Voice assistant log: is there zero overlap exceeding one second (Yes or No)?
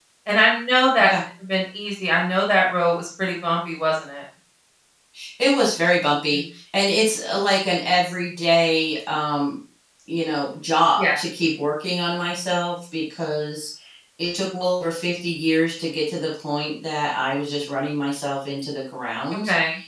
Yes